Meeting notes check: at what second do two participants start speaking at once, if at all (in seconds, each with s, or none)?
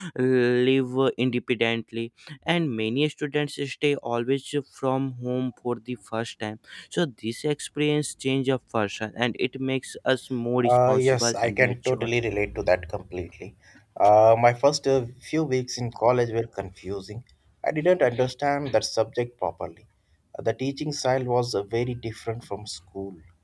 10.6 s